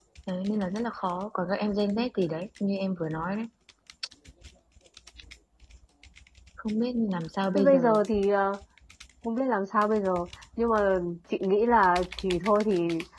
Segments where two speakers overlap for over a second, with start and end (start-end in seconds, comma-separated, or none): none